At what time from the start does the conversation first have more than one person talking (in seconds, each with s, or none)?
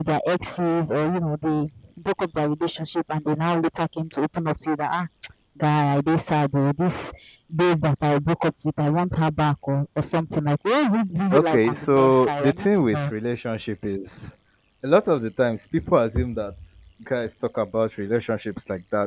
11.3 s